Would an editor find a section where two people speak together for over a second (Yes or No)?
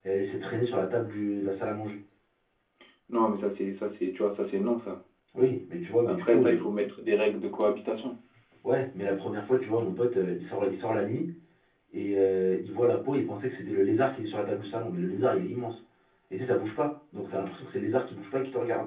No